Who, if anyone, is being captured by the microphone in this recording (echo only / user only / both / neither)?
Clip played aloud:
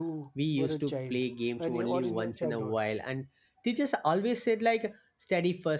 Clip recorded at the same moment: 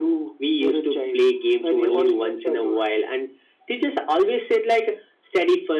echo only